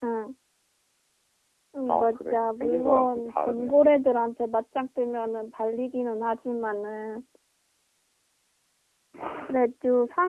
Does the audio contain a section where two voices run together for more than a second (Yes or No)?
Yes